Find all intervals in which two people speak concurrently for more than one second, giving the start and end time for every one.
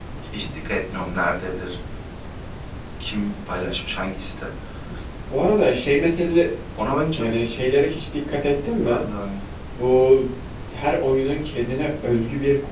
none

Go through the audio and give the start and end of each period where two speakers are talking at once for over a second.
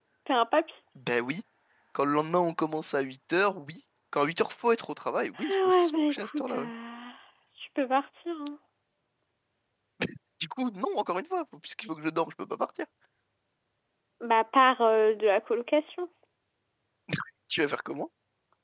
5.4-6.7

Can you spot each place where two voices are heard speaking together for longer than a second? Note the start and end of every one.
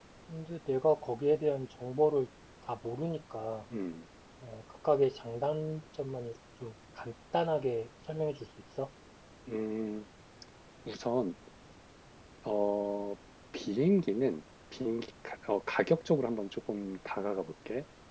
none

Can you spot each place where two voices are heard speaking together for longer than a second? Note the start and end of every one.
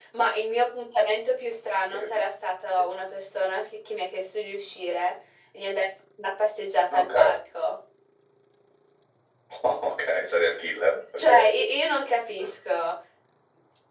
none

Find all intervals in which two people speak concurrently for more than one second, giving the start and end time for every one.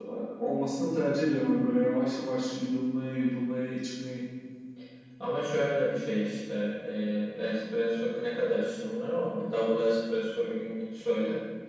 none

